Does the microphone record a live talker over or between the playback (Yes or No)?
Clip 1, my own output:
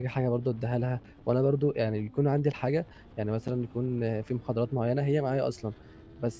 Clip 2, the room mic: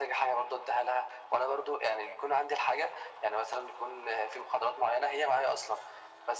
No